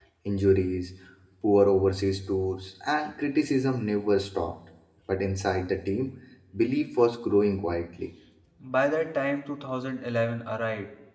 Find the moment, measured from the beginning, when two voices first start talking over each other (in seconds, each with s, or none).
none